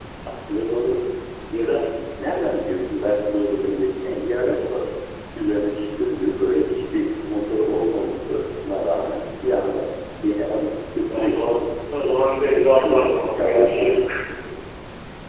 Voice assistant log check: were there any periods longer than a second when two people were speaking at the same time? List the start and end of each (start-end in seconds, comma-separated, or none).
12.7-14.0